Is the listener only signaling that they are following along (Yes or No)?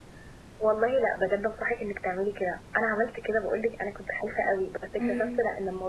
Yes